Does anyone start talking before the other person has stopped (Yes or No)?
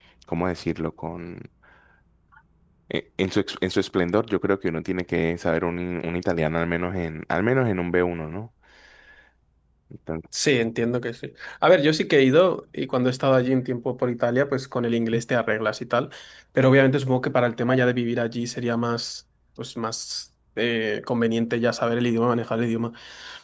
No